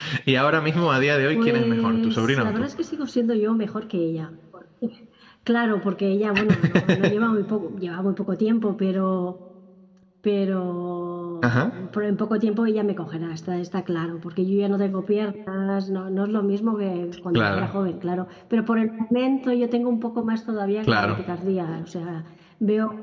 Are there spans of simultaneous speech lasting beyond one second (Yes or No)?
Yes